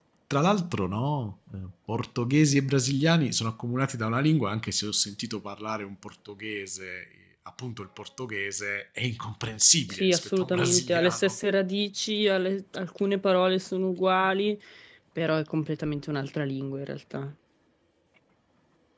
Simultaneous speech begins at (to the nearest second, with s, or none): 10 s